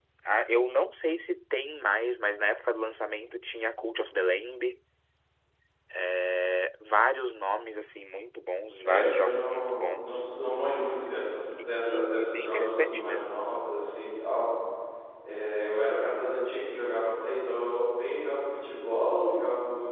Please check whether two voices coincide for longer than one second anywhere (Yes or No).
Yes